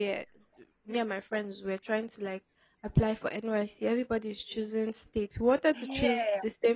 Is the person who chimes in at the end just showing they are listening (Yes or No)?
Yes